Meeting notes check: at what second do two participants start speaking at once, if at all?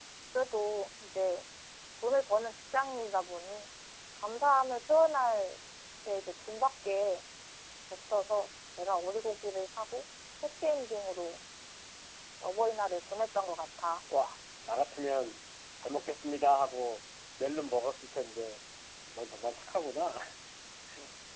none

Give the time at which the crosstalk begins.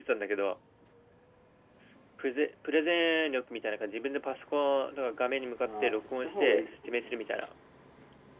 6 s

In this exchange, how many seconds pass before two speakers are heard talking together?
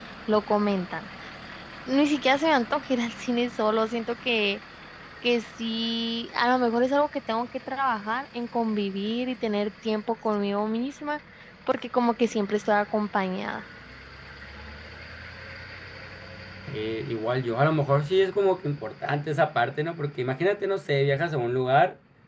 none

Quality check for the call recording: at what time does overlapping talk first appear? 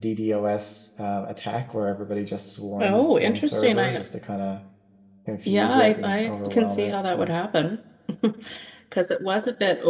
3 s

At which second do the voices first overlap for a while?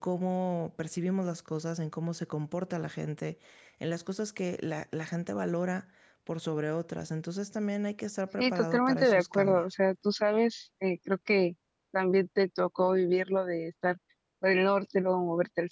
8 s

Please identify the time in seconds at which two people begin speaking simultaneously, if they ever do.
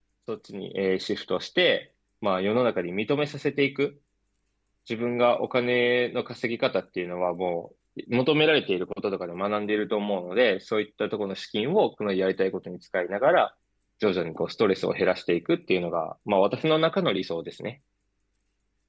none

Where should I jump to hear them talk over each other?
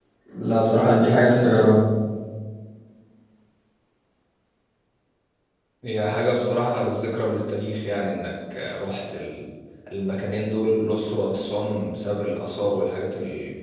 none

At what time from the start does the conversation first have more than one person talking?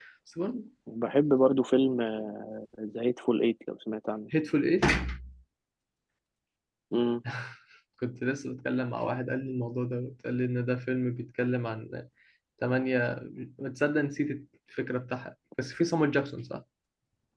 none

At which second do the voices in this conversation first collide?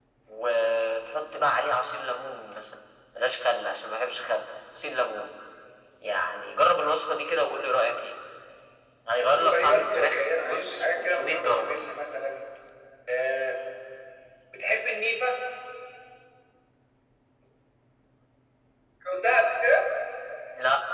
9 s

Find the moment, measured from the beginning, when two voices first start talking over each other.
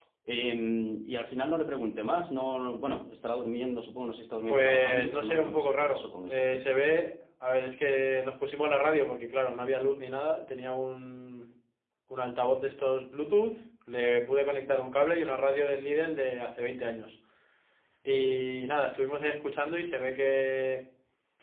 4 s

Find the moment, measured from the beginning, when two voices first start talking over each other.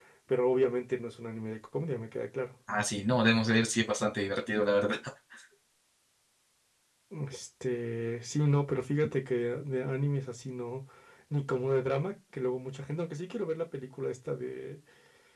none

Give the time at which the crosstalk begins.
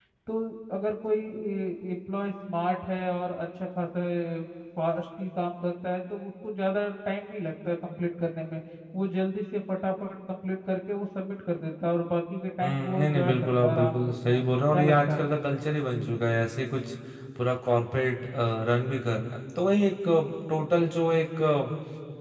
13 s

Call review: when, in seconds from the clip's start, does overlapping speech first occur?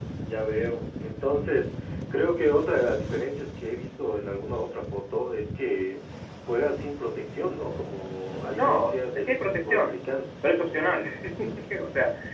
9 s

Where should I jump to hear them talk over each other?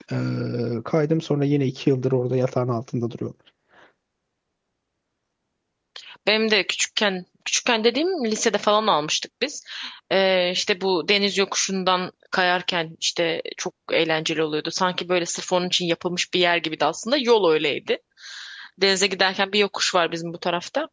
none

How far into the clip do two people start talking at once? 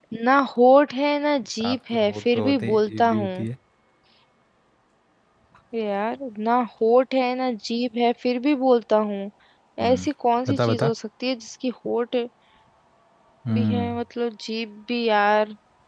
2 s

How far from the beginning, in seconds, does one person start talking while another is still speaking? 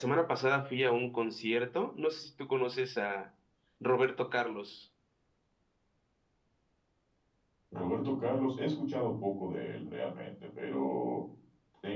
none

